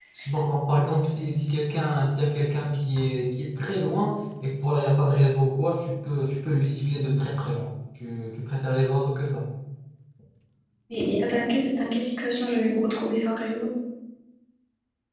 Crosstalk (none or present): none